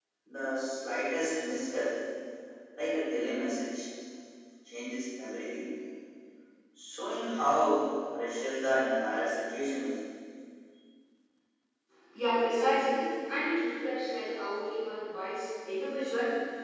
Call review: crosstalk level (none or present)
none